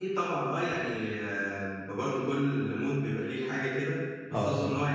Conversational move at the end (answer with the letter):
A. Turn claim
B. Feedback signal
B